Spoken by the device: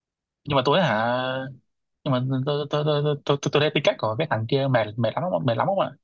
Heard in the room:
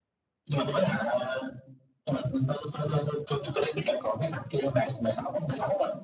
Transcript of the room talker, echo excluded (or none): none